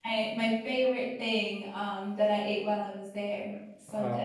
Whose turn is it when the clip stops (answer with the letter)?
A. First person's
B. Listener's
B